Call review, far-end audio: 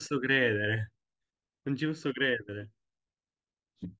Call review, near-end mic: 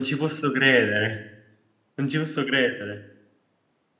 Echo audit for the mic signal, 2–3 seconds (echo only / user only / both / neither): echo only